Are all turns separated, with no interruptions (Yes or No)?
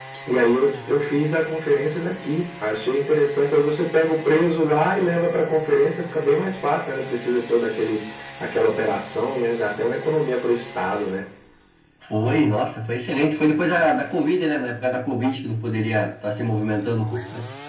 Yes